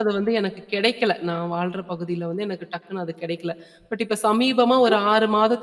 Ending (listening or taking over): listening